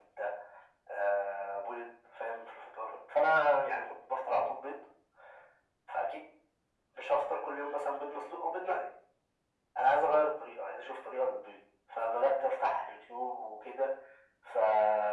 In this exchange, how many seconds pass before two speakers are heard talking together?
none

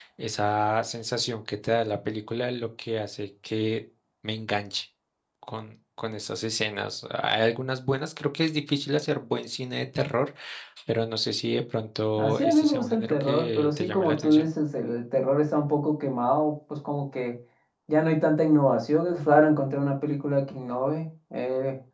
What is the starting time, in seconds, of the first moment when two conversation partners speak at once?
12.2 s

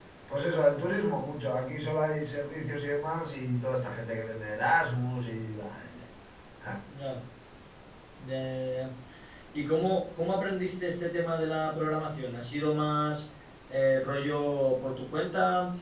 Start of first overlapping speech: none

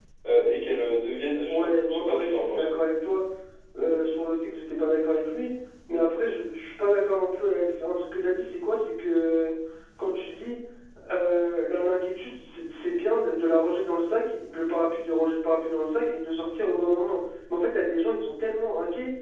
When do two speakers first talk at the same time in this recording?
1.5 s

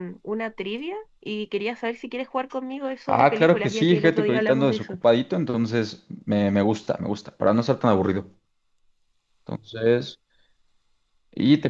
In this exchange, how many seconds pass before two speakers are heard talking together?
3.1 s

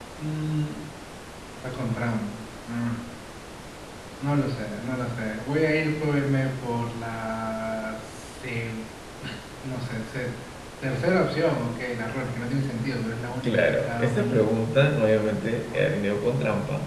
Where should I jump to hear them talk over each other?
13.4 s

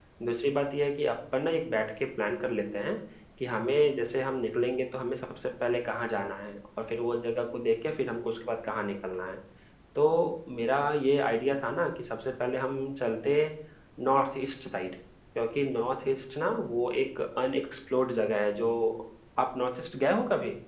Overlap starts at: none

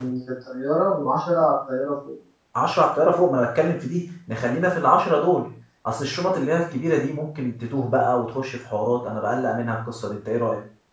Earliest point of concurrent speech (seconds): none

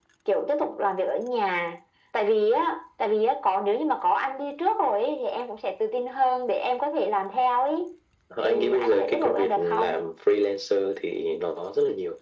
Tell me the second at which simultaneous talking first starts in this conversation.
8.4 s

